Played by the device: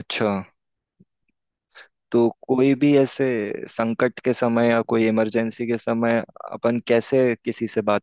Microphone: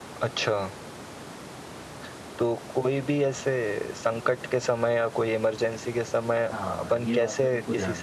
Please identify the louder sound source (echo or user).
echo